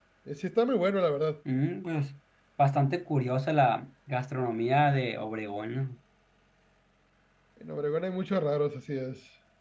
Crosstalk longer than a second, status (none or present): none